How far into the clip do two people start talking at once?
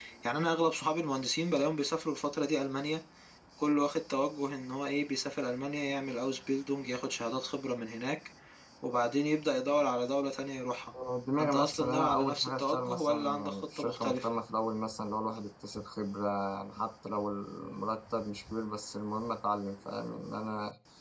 11.4 s

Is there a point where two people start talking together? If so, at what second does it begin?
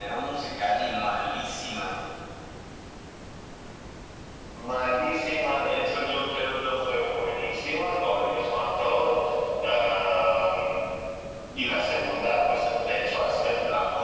none

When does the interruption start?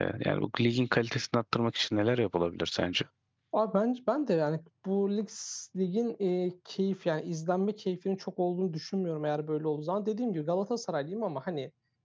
none

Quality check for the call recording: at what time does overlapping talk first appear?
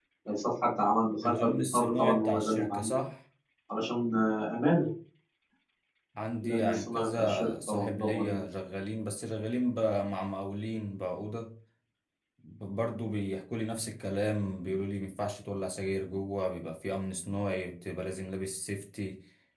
1.2 s

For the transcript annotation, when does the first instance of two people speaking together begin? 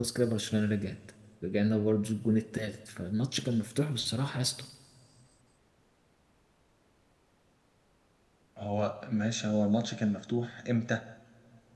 none

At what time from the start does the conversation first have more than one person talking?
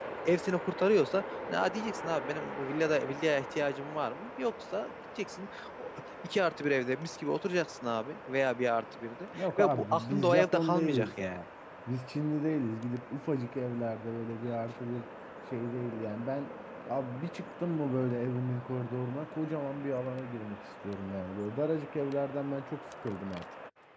9.3 s

